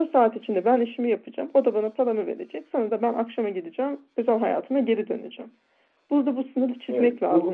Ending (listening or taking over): listening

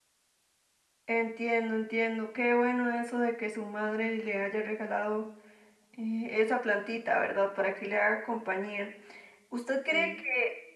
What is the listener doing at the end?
listening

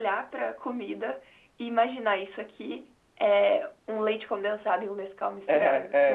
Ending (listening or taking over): taking over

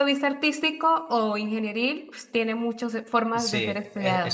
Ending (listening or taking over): taking over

